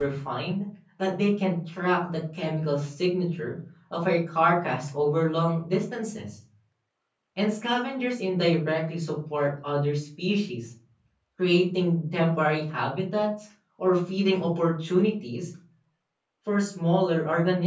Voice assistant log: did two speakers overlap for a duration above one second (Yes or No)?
No